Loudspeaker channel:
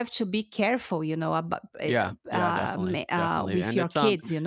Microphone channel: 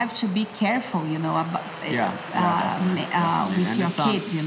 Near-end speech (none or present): none